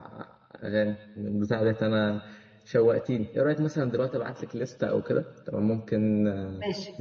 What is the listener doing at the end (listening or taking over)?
taking over